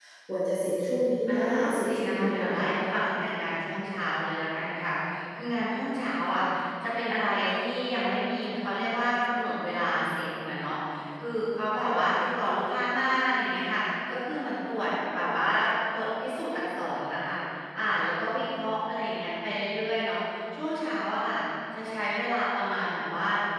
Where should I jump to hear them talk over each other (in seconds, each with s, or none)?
1.3 s